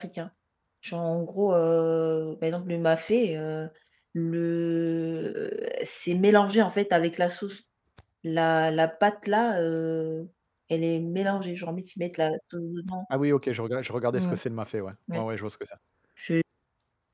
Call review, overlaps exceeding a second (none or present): none